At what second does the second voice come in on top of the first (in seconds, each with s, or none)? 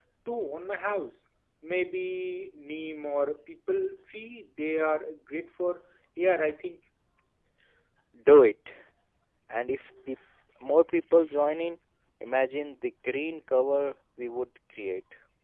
none